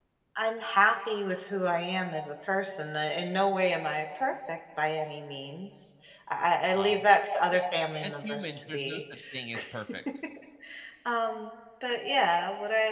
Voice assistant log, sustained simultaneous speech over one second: present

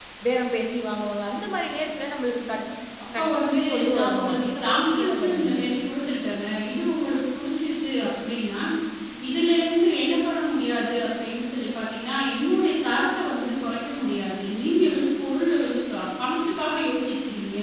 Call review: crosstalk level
present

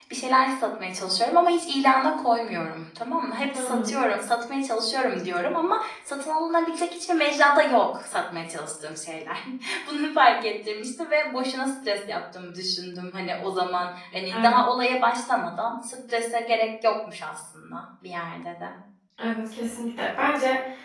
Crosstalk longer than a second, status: none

